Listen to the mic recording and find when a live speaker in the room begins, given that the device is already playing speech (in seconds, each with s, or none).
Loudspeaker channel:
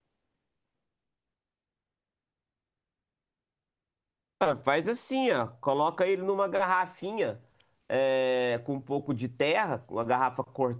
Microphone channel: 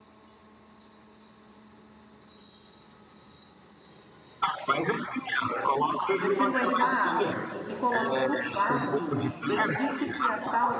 6.2 s